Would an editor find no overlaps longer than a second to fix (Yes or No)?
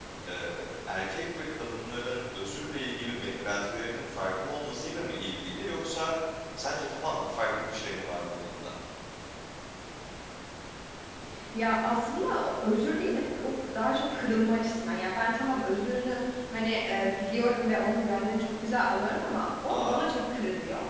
Yes